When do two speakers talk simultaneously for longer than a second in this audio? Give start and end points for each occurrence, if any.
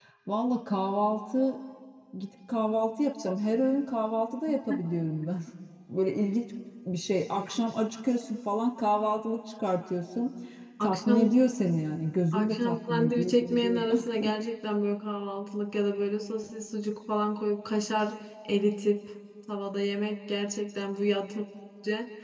12.3-13.8

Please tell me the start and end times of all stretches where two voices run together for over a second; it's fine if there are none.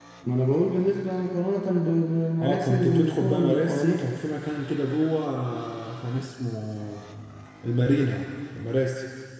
2.4-4.0

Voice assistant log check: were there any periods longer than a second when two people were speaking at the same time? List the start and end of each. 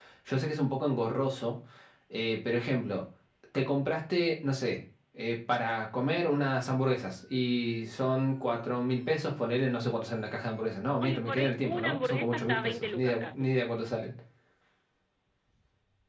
11.0-13.5

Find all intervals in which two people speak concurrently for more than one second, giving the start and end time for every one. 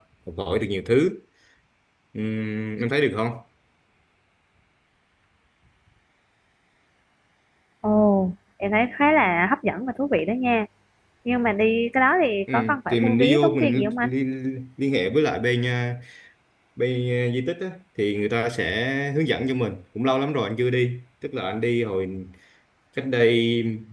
12.5-14.1

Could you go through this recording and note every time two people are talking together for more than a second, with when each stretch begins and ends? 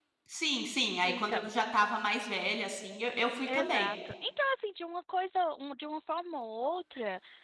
none

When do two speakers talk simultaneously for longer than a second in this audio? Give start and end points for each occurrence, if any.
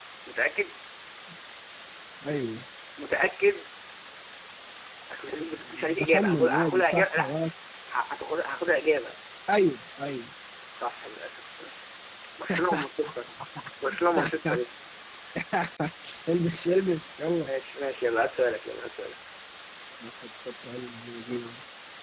6.0-7.3

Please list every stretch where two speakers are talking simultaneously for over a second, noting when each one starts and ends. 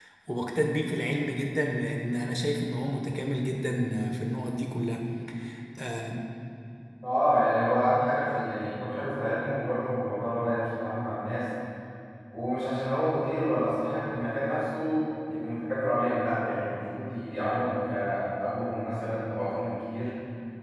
none

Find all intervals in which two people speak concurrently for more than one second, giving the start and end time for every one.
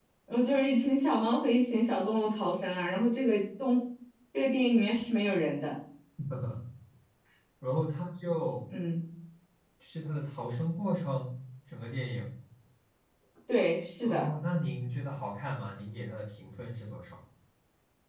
none

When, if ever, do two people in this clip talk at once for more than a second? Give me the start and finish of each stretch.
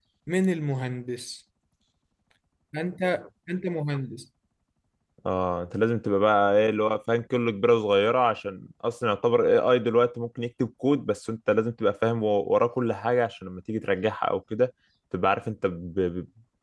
none

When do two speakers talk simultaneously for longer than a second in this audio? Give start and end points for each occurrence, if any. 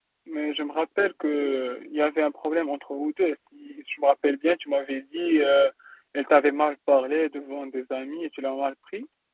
none

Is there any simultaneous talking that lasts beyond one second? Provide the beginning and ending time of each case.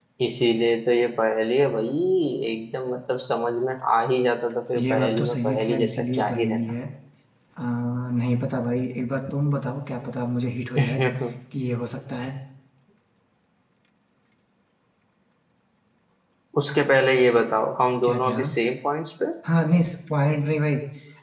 4.8-6.6

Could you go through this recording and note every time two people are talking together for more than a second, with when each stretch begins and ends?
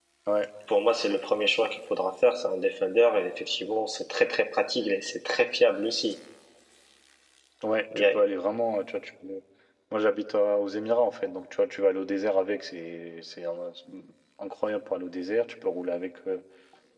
none

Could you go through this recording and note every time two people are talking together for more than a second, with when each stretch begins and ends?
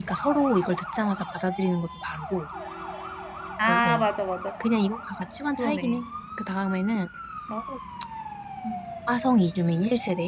none

